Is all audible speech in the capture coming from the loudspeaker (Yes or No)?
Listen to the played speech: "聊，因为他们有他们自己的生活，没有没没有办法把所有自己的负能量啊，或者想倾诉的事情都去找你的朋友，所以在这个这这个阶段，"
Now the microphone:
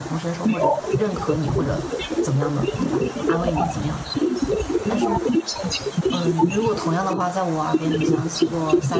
No